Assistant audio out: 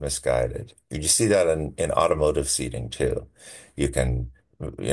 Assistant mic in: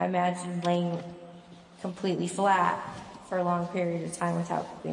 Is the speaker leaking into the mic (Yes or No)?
No